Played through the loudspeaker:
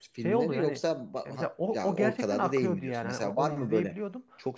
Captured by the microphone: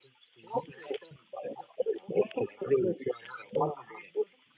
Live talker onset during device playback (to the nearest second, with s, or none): none